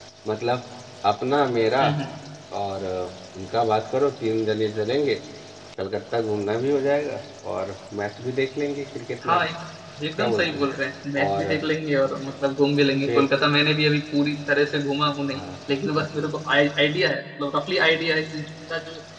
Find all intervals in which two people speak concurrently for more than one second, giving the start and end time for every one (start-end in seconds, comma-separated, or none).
none